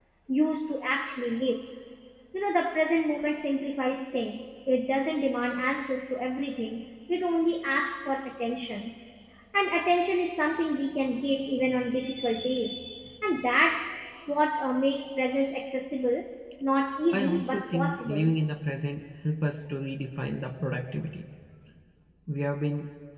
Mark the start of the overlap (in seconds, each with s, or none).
17.1 s